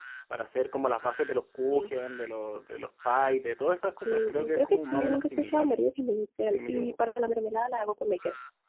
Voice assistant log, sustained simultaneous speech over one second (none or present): present